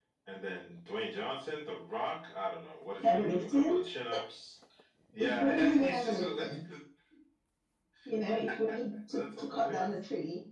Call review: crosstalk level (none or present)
present